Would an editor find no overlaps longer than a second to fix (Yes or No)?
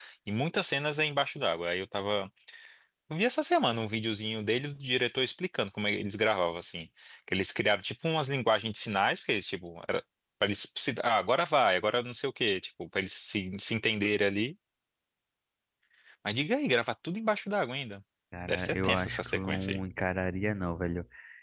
No